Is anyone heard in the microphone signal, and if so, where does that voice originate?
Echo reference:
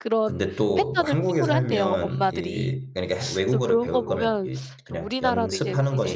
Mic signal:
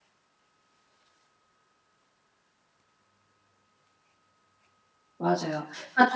user only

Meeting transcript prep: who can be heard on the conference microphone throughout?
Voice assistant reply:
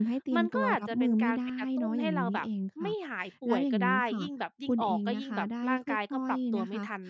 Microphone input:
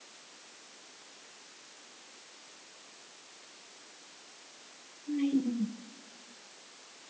user only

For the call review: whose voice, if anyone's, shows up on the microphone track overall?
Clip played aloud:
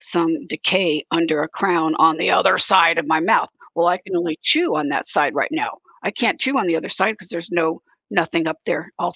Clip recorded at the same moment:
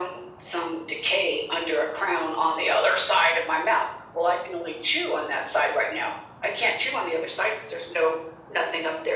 echo only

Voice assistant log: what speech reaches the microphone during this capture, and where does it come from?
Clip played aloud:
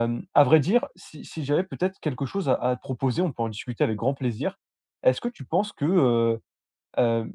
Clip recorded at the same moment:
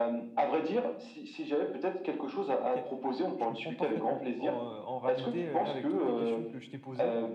both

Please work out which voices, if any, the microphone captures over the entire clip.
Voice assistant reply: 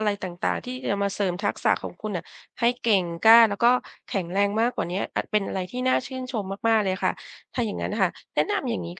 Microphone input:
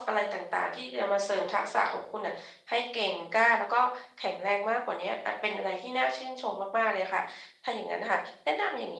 echo only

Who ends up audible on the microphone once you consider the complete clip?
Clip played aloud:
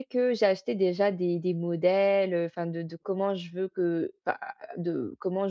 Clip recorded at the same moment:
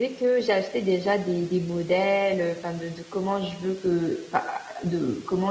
echo only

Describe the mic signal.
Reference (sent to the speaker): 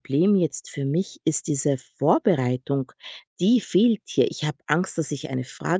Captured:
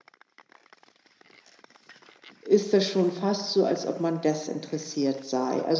user only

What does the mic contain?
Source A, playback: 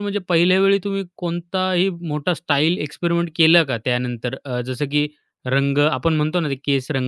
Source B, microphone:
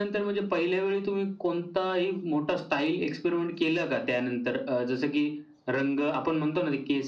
echo only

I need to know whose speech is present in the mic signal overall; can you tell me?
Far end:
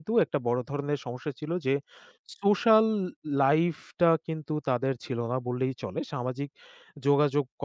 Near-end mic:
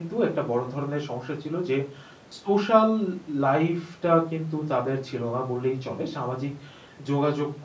echo only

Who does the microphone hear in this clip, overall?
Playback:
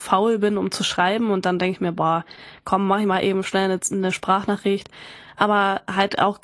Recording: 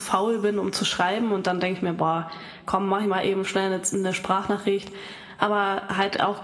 echo only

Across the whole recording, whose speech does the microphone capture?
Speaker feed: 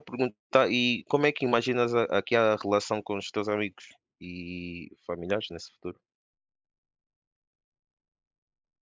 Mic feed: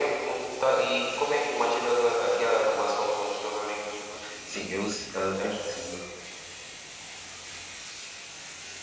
both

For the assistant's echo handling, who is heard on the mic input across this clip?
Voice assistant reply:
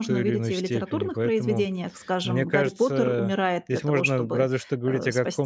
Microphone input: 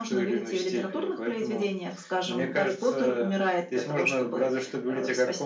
echo only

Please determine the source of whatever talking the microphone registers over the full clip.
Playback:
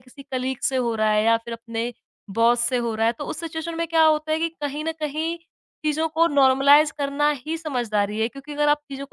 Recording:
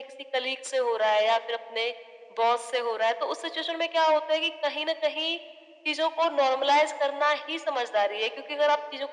echo only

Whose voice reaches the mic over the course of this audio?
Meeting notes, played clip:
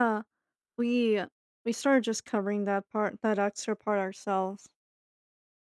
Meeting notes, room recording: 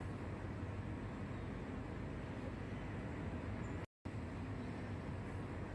neither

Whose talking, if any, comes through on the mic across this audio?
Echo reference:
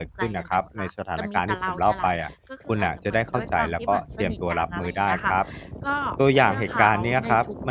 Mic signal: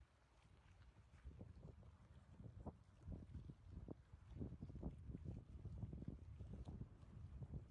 neither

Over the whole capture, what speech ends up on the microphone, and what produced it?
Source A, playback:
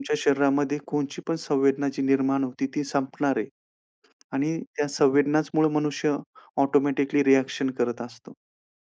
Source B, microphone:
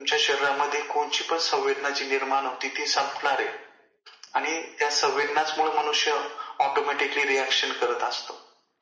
echo only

